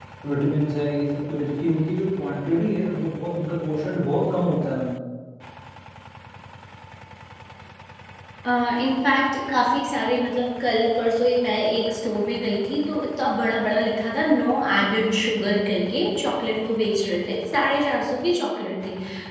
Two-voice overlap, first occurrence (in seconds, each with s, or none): none